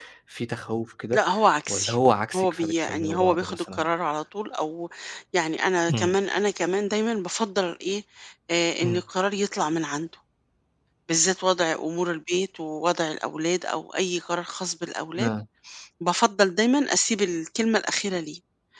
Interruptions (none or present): present